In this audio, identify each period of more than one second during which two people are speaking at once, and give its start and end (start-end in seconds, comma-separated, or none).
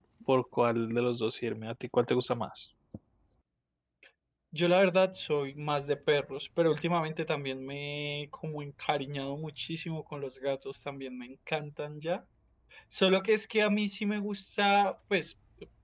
none